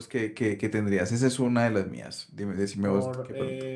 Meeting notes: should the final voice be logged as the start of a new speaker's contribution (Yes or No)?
Yes